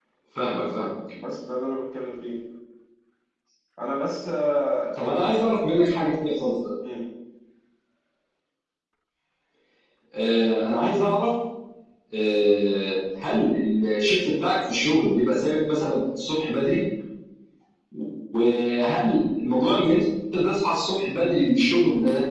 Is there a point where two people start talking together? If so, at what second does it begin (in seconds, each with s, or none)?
none